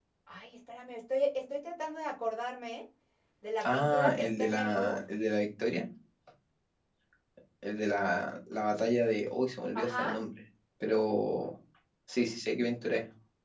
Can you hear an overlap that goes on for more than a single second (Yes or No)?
Yes